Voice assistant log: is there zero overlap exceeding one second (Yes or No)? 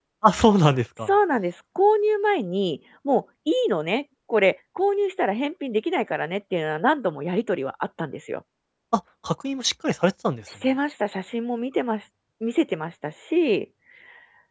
Yes